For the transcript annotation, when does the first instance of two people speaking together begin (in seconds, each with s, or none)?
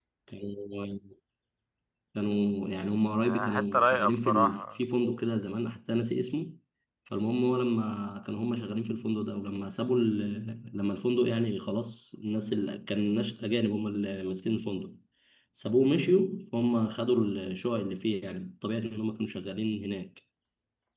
3.2 s